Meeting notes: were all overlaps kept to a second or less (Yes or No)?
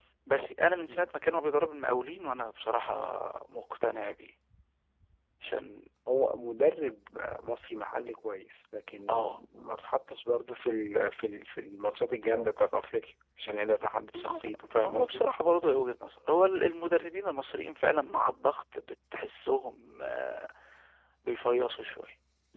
Yes